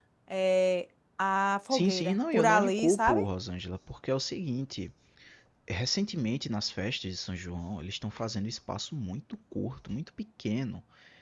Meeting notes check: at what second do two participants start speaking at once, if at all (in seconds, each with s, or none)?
1.7 s